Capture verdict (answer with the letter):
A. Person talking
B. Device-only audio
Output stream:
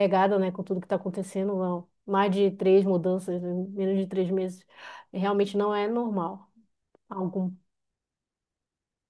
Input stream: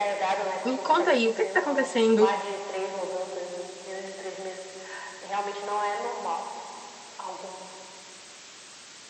A